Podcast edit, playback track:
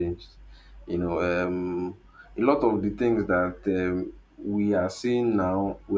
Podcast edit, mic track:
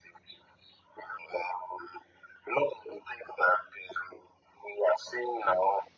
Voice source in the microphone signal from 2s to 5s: echo only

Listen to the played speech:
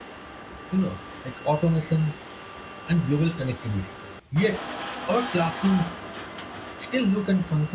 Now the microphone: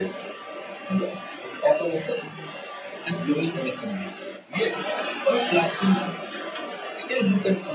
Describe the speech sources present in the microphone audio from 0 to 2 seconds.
echo only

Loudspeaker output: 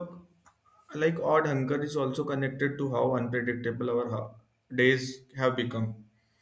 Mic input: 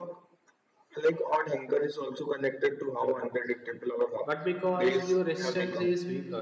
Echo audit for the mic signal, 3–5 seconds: both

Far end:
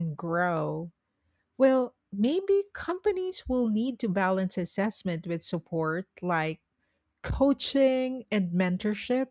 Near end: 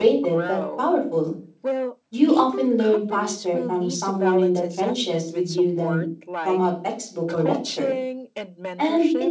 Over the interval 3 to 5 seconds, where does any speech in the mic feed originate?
both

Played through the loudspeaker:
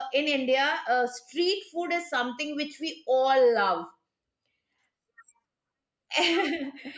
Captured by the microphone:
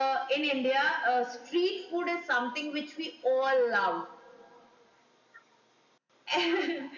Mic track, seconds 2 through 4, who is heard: echo only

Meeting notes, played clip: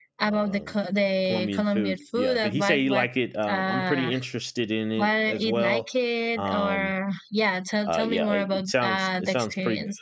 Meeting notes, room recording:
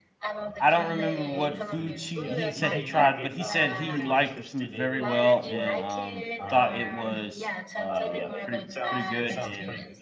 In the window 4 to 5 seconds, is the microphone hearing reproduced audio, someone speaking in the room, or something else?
both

